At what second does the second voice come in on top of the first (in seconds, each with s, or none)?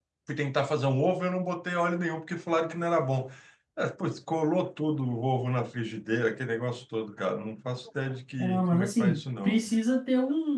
8.4 s